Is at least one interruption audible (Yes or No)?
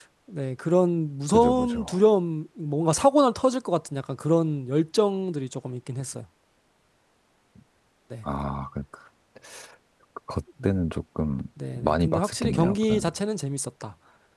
Yes